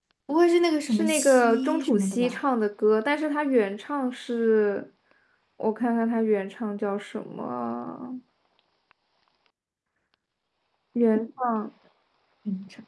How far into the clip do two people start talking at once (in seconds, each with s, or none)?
0.9 s